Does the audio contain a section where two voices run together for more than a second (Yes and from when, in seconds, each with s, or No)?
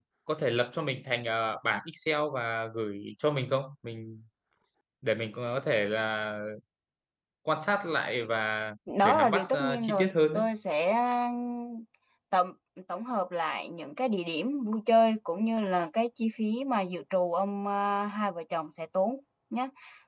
Yes, from 8.9 s